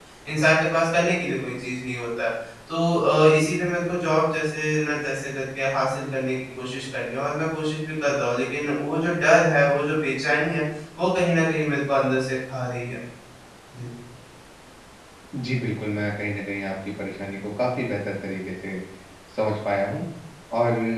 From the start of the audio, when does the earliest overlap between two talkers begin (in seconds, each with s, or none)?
none